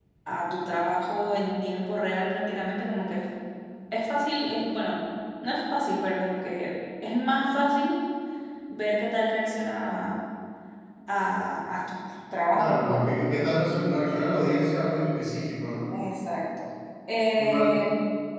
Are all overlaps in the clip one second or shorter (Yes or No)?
Yes